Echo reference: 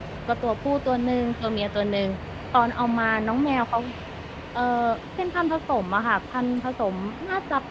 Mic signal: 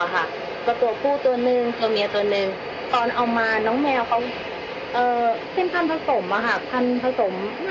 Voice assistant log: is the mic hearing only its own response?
Yes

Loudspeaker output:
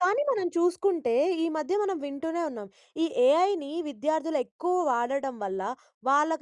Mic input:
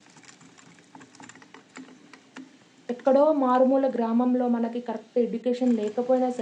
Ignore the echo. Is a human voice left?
Yes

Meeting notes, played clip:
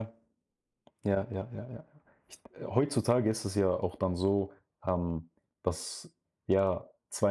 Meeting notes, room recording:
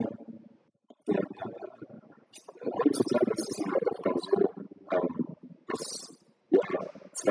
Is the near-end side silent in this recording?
Yes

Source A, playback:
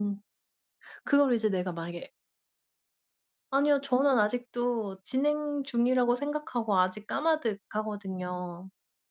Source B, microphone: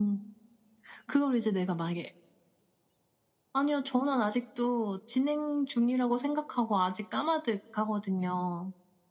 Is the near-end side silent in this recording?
Yes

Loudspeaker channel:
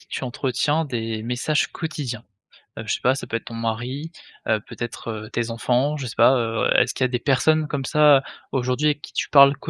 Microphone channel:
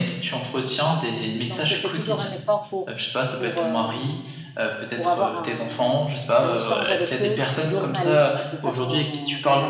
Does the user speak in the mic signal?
Yes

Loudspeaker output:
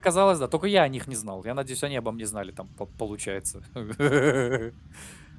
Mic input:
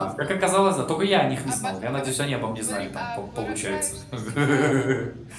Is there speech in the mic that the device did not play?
Yes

